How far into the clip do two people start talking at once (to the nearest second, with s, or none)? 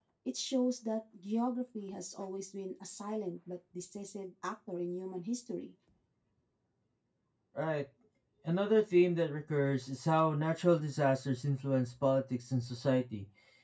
none